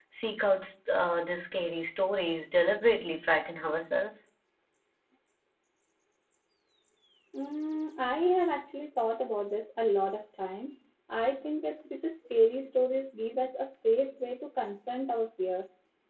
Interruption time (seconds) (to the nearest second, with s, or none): none